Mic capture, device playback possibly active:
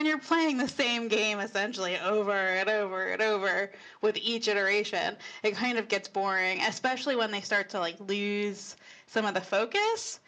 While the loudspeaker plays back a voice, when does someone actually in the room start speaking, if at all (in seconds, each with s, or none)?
none